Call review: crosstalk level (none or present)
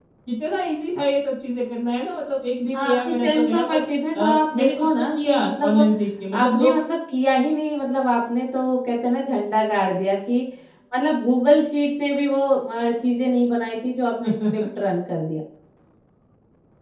present